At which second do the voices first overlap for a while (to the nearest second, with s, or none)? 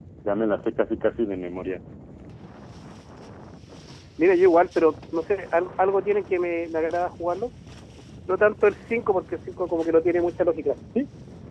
none